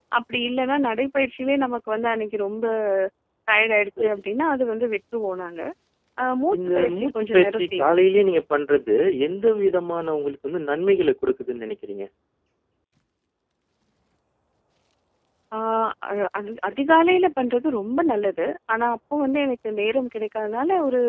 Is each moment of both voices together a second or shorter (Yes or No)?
No